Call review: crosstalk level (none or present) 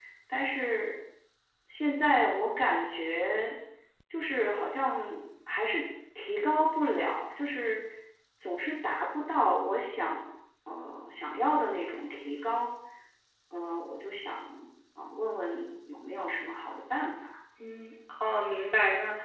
none